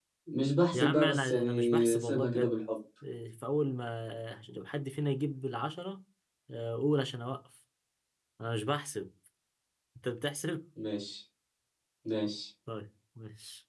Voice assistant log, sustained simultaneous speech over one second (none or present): present